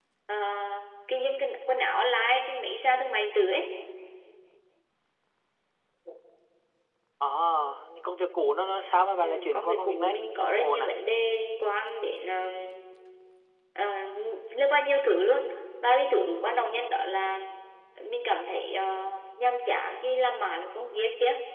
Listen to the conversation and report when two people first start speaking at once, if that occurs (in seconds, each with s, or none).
9.2 s